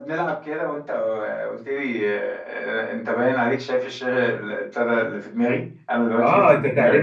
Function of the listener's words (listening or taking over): taking over